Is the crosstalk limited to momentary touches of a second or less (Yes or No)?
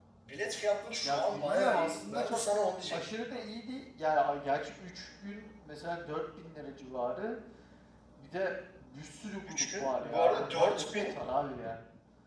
No